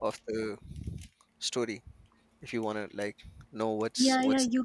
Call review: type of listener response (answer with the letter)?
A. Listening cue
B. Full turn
B